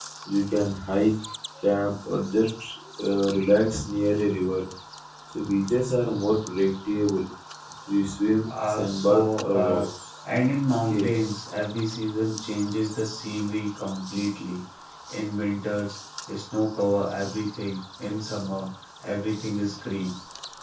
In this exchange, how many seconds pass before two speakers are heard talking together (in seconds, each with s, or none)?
8.5 s